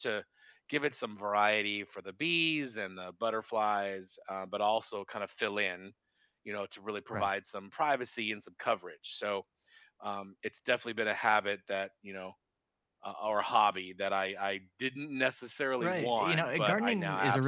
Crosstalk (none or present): present